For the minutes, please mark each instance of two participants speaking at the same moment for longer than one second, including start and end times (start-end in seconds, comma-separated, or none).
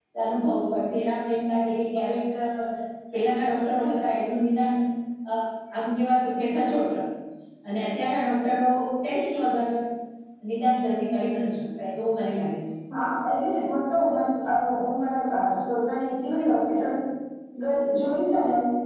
none